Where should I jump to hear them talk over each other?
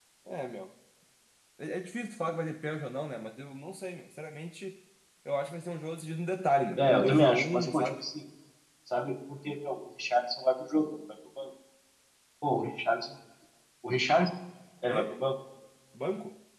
6.8 s

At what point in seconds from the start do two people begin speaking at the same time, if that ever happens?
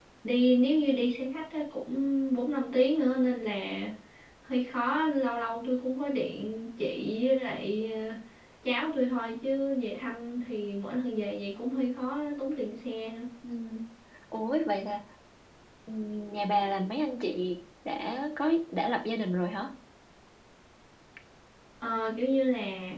none

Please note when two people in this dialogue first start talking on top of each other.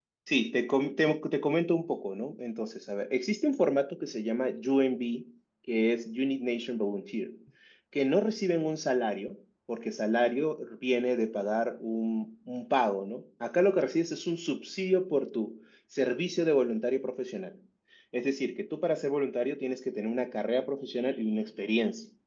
none

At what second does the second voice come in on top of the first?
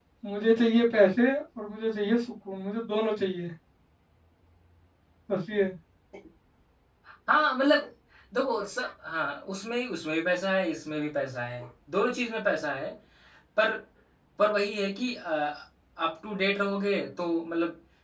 none

